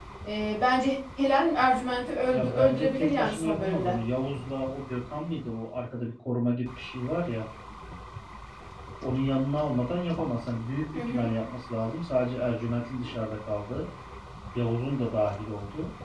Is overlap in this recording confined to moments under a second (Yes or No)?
No